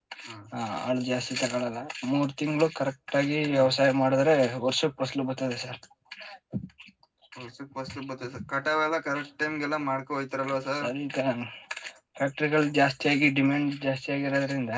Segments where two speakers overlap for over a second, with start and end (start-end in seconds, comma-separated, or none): none